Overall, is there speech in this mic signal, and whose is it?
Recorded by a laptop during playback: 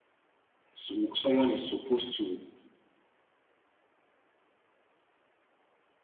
user only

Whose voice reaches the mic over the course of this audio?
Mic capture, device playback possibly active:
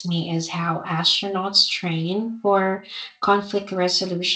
echo only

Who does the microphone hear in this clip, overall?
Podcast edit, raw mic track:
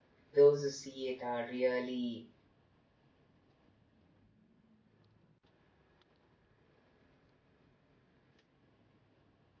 user only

